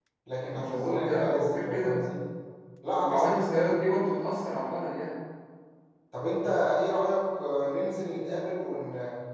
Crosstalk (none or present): present